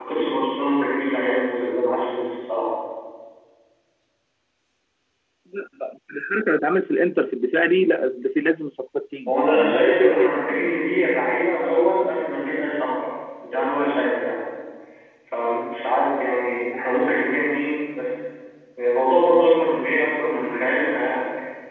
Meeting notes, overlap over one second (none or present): present